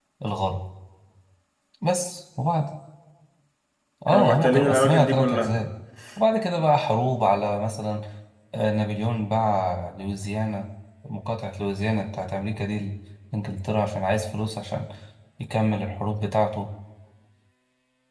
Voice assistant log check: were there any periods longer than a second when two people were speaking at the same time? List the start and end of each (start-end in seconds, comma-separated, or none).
4.1-5.5